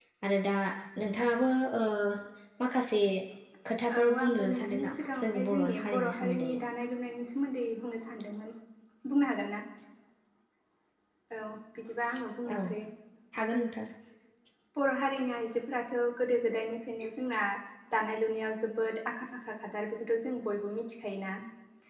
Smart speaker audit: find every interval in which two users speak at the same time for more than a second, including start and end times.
4.0-6.6

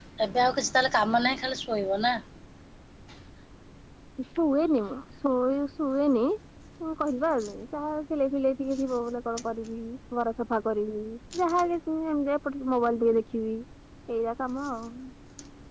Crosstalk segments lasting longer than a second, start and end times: none

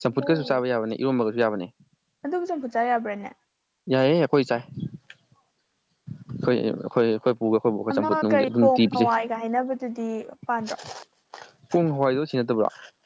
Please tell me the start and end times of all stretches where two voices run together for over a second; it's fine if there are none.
7.9-9.1

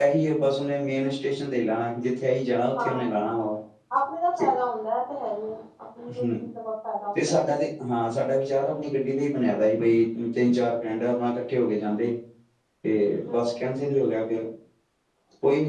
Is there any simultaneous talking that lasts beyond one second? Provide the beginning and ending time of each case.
none

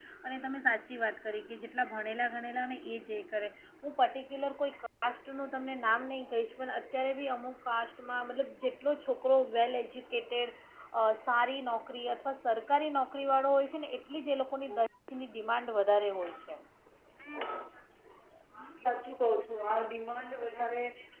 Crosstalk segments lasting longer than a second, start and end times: none

